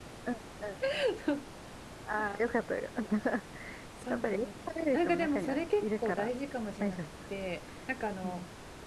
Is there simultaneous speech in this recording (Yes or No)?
Yes